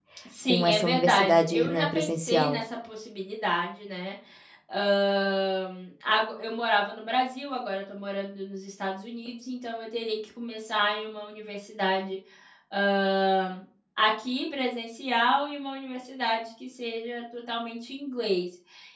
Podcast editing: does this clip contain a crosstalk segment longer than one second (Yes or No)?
Yes